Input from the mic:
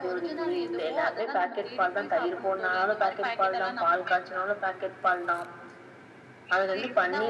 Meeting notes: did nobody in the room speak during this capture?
Yes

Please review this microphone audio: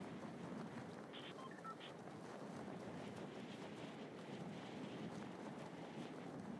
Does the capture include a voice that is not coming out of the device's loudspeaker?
No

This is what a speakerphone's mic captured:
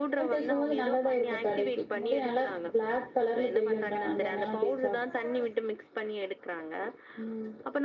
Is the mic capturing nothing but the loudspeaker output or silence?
Yes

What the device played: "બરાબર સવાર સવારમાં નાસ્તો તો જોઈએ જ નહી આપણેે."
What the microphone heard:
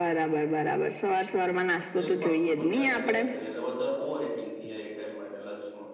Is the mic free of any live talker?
No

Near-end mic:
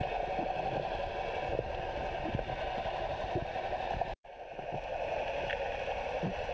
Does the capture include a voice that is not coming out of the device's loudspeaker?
No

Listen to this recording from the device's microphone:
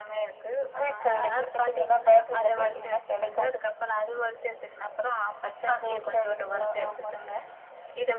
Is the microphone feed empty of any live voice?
Yes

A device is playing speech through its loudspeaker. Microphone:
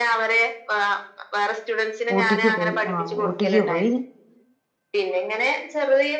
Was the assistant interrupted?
Yes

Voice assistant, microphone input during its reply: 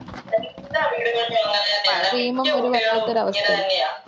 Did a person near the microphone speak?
Yes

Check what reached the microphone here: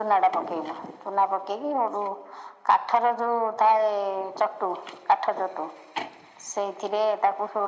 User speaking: No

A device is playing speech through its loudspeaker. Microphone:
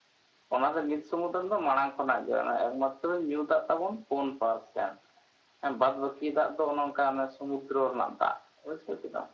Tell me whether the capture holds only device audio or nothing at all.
Yes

